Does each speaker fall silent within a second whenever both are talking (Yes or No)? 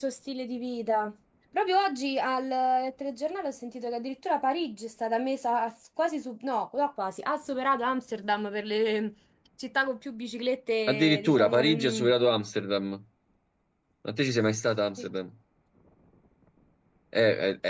No